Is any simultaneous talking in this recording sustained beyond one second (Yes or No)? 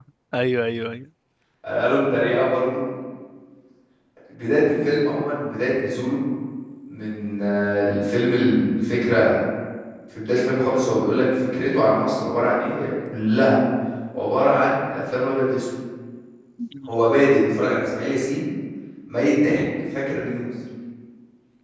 No